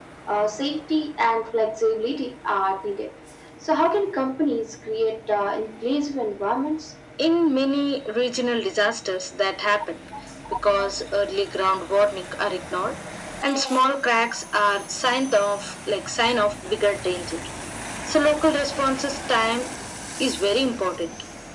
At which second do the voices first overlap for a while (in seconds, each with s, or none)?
none